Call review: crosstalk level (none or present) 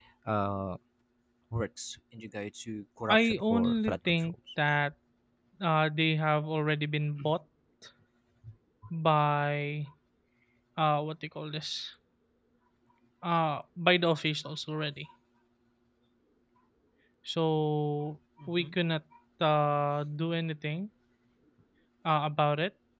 present